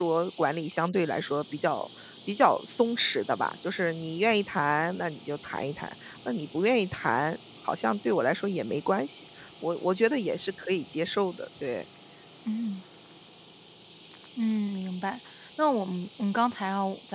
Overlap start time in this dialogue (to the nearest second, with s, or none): none